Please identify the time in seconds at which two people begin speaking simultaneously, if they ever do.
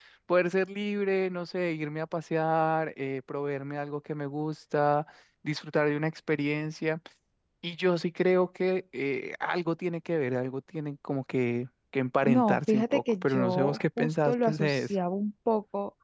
12.2 s

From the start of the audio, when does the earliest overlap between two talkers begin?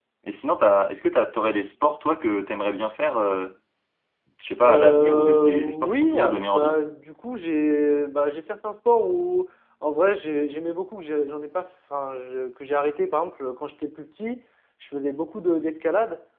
4.6 s

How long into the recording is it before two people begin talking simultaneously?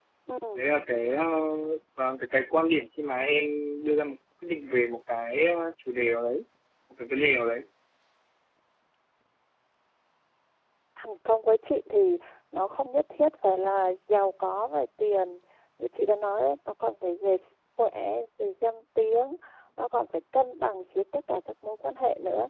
none

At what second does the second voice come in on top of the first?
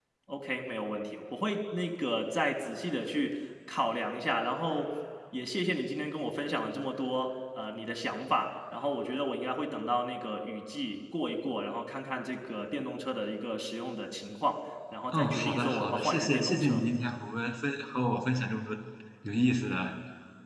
15.1 s

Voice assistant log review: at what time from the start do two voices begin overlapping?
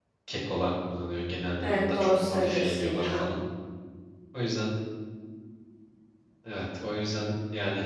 1.6 s

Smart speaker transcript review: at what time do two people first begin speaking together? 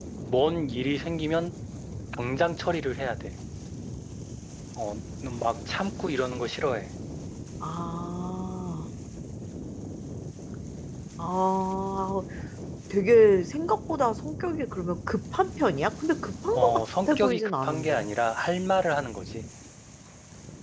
16.5 s

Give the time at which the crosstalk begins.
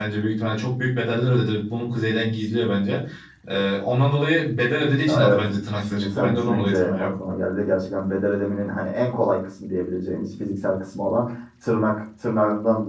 5.0 s

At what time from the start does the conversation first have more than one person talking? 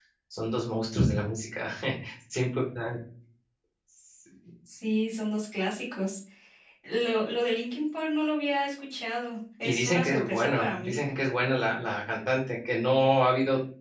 9.6 s

